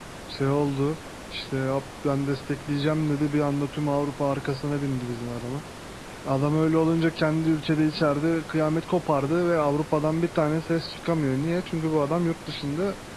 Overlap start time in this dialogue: none

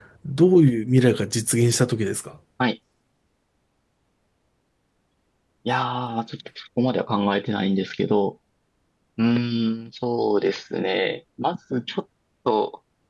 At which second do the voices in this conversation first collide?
none

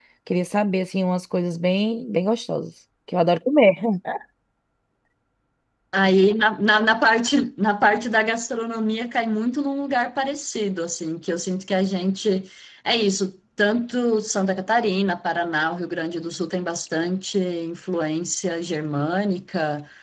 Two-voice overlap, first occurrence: none

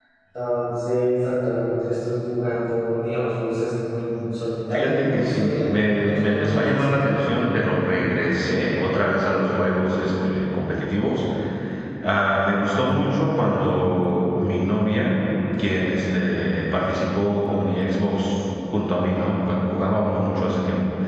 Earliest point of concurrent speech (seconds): 4.7 s

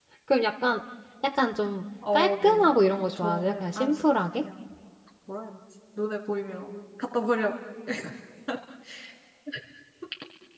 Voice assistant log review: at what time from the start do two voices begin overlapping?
2.0 s

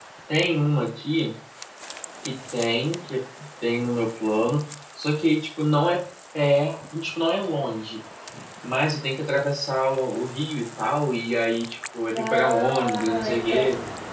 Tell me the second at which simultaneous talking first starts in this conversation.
12.2 s

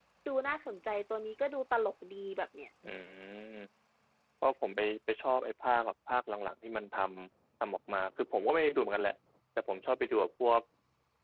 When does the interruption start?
none

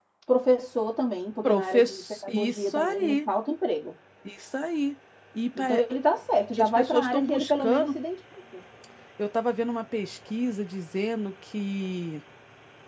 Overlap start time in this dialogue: 1.4 s

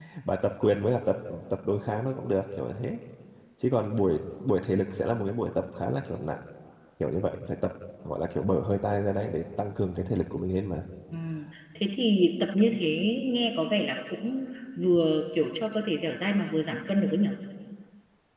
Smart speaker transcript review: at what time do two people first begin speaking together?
none

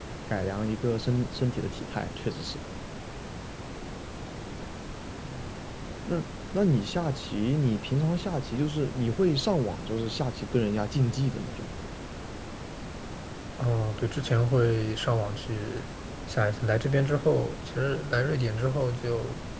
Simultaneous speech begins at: none

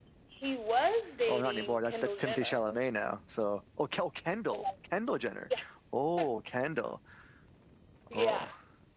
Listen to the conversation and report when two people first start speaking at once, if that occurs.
1.3 s

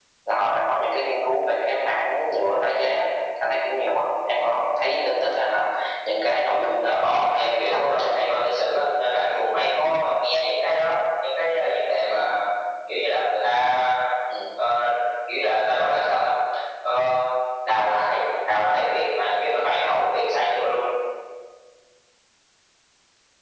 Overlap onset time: 6.8 s

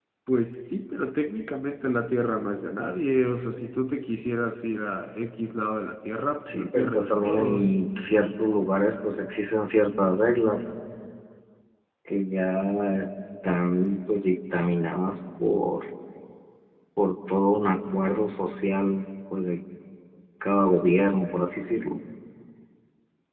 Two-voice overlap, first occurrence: 6.5 s

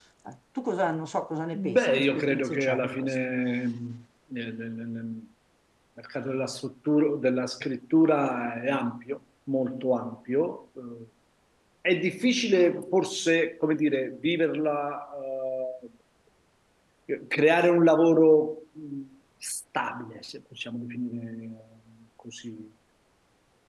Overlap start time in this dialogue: 1.5 s

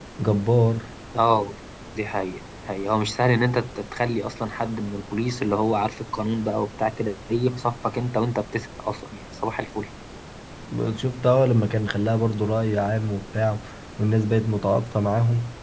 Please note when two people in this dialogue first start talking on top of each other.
none

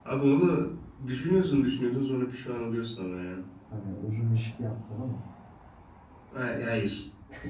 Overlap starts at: none

